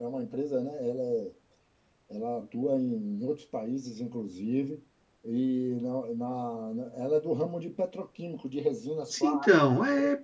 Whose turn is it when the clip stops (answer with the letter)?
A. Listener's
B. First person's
A